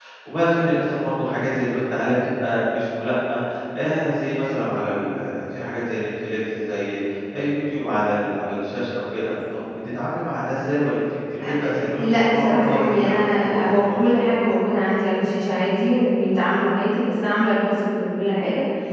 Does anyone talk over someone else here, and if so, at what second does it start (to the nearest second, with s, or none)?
11 s